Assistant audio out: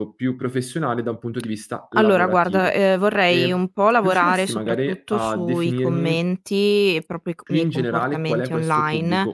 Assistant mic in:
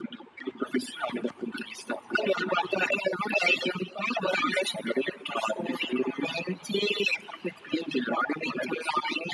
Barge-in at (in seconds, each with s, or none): none